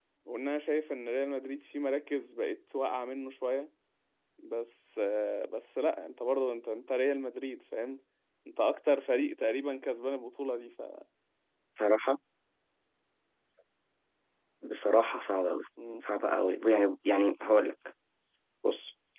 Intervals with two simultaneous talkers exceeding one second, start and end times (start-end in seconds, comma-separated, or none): none